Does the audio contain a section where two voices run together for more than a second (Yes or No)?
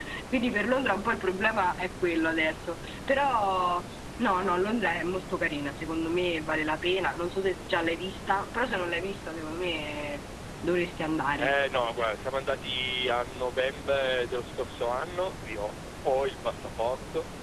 No